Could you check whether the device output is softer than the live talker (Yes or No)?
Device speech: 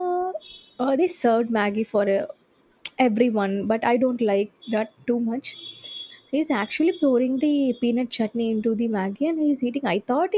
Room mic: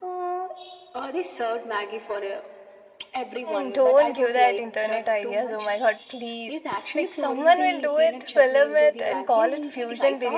Yes